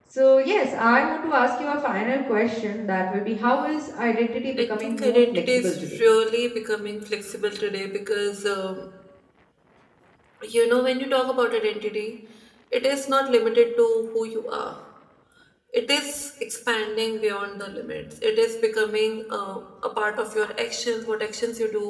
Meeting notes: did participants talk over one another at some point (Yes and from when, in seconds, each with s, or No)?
Yes, from 4.6 s